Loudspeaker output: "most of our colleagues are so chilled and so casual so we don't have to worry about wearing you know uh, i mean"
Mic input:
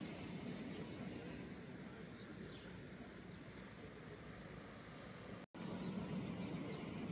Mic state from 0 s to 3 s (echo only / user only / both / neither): neither